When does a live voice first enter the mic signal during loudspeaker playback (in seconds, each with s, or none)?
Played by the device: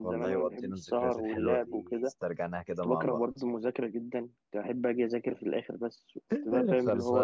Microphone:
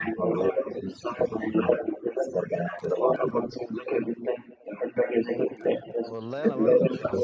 6.0 s